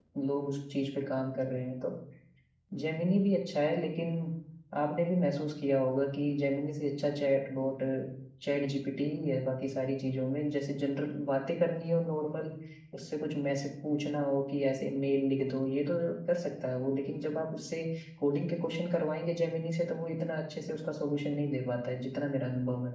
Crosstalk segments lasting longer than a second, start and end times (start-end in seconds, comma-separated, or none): none